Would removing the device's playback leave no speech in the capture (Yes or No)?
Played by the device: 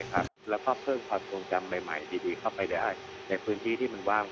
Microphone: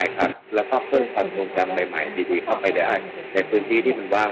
No